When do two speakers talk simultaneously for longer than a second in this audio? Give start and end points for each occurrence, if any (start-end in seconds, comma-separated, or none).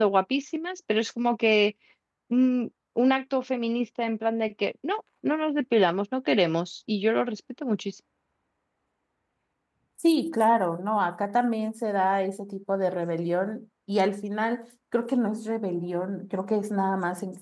none